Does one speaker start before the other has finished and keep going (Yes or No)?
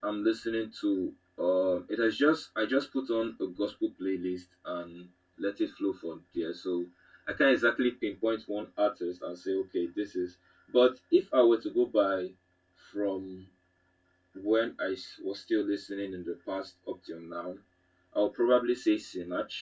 No